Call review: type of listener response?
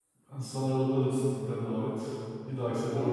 taking over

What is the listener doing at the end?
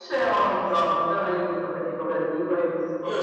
taking over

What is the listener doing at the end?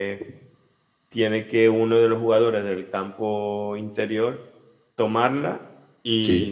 listening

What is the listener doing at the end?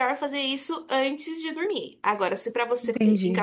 listening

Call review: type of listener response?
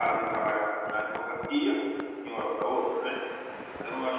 listening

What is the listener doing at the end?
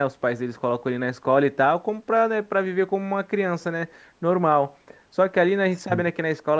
listening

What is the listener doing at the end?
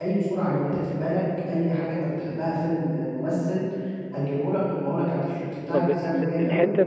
taking over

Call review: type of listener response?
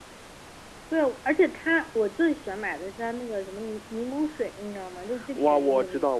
taking over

